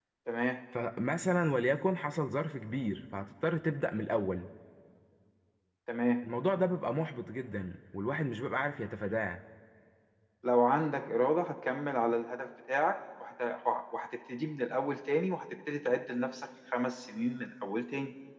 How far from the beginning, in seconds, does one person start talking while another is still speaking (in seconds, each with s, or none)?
none